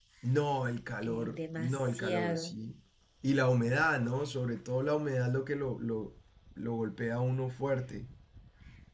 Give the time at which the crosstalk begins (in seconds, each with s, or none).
1.0 s